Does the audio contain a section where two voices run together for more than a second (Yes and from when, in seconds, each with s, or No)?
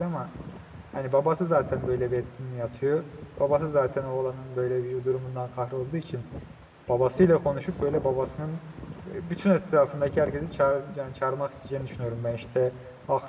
No